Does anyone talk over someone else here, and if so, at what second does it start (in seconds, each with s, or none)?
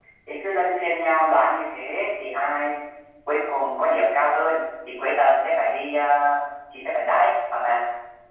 none